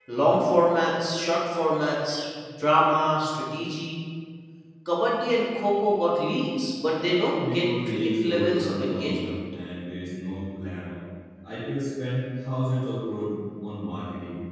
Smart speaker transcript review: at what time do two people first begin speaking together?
7 s

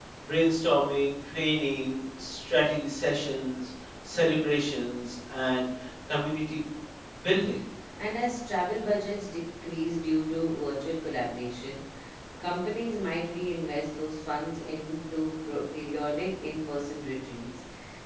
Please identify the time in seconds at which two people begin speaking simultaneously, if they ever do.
none

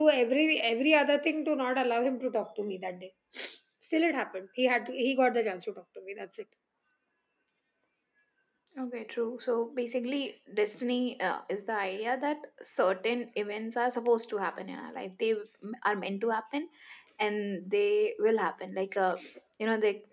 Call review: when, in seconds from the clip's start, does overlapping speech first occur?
none

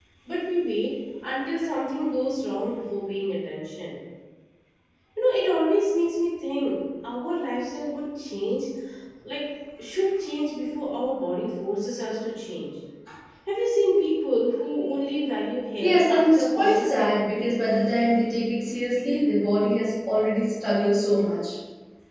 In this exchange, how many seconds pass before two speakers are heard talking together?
16 s

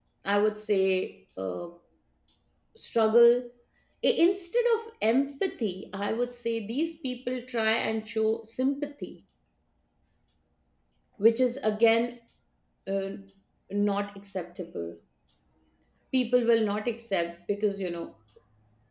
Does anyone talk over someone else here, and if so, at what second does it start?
none

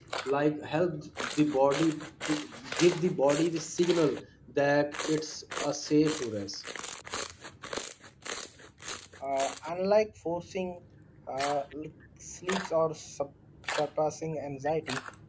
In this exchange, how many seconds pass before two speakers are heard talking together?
none

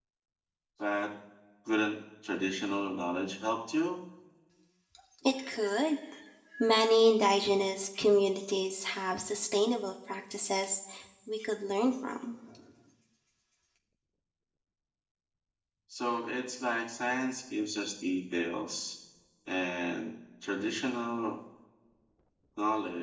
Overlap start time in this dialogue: none

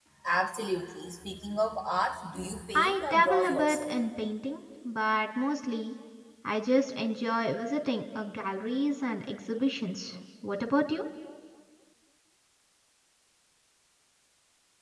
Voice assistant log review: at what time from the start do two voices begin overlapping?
3 s

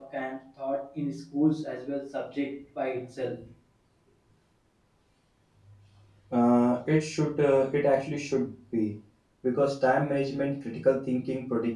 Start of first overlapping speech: none

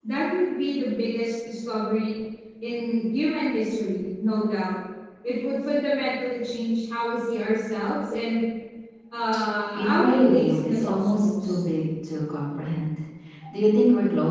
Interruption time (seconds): 10 s

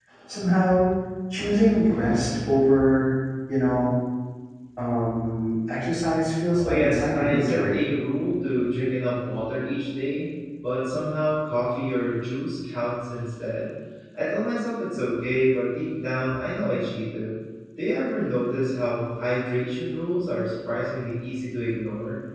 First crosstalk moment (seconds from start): 7 s

